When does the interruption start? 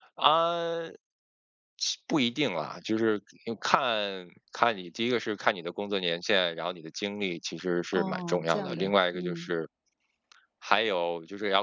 7.9 s

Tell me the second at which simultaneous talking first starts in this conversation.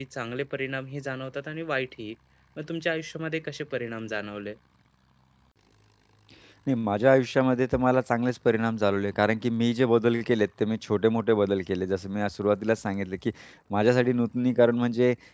none

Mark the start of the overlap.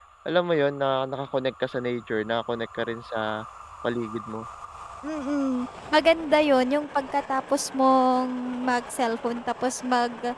none

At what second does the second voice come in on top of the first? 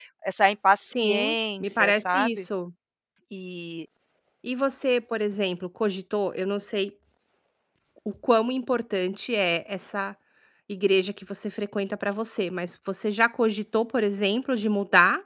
0.8 s

